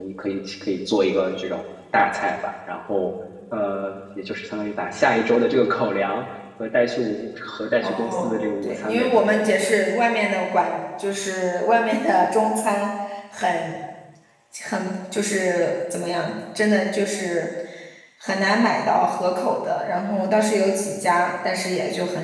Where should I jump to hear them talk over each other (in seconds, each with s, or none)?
7.8 s